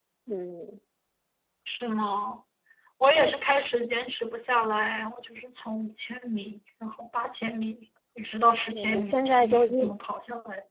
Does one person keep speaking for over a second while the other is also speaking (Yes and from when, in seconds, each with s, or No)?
Yes, from 8.7 s